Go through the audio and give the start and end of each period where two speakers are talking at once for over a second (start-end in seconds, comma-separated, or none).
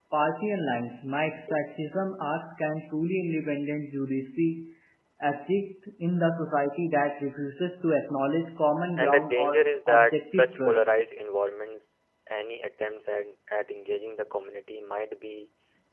9.0-10.8